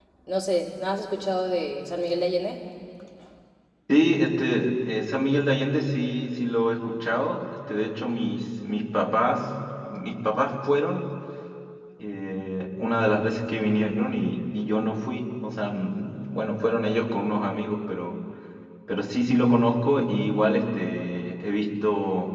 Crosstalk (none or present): none